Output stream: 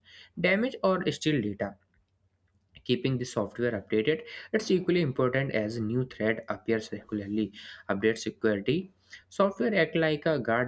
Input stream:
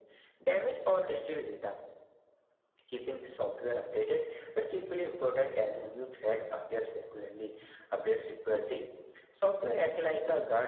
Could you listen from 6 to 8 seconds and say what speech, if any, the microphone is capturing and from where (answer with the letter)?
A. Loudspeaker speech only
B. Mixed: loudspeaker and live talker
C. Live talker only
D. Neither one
A